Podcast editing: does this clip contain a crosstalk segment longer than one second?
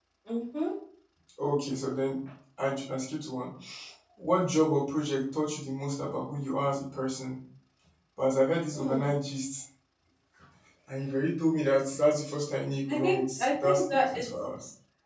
Yes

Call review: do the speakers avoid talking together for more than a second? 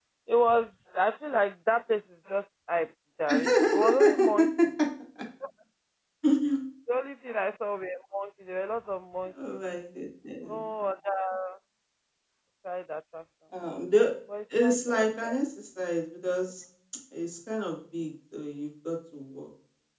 No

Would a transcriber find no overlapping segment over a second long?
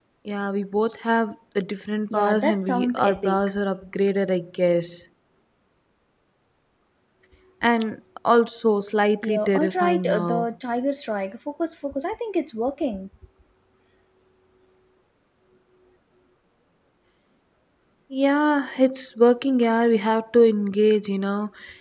No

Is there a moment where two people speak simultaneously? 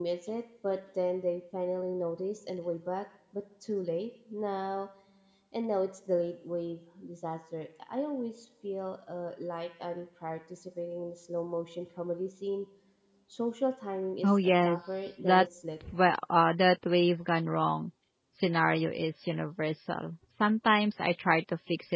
Yes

